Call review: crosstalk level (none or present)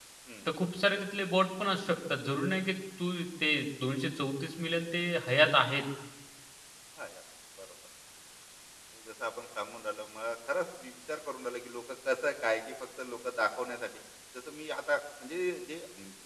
none